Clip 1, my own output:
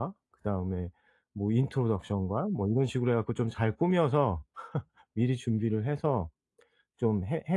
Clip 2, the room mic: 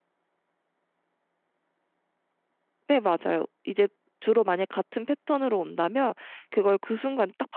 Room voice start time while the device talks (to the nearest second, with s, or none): 3 s